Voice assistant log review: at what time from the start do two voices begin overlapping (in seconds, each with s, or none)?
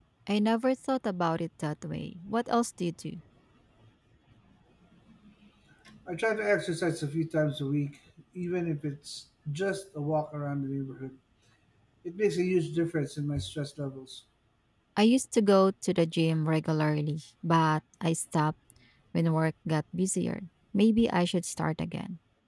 none